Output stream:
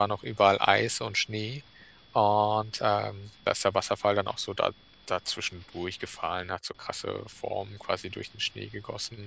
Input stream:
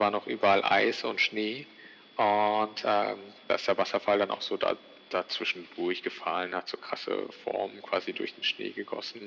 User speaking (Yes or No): No